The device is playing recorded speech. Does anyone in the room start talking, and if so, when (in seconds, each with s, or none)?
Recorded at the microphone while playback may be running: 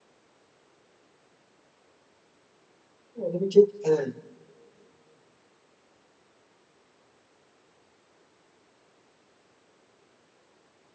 3.2 s